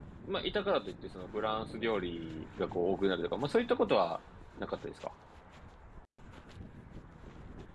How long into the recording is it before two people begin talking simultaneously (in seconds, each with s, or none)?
none